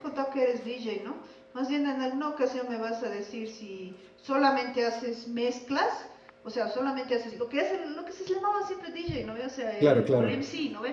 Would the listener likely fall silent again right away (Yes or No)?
Yes